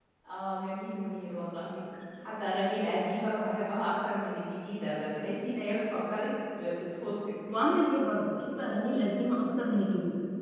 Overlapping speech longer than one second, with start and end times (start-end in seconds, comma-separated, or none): none